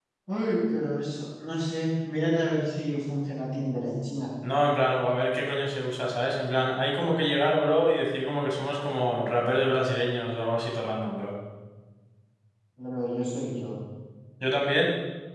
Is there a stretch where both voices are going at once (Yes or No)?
No